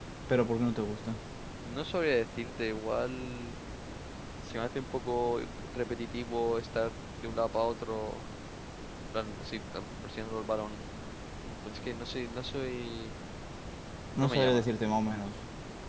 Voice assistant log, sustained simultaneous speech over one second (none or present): none